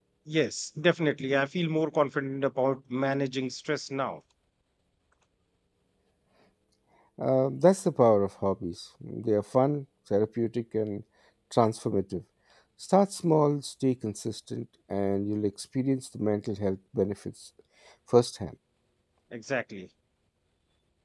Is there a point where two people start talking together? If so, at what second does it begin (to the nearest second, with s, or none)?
none